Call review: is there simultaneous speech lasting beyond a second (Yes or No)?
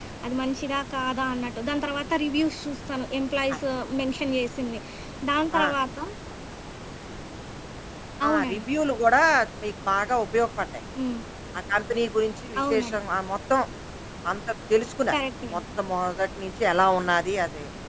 No